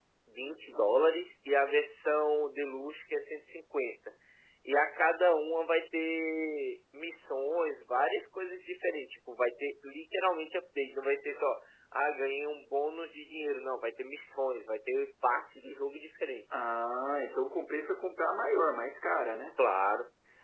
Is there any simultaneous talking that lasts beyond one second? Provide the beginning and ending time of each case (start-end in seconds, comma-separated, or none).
none